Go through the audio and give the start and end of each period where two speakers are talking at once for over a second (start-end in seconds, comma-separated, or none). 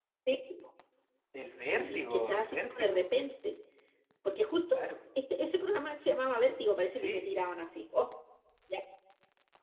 1.7-3.1